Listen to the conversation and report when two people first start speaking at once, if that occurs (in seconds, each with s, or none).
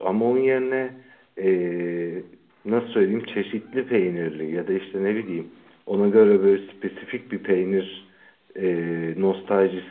none